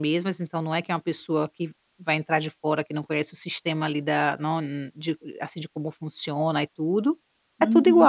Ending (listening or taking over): taking over